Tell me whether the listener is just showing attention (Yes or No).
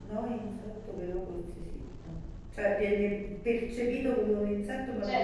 No